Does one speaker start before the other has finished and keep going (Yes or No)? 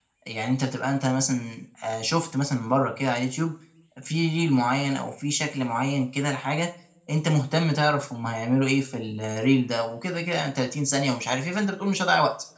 No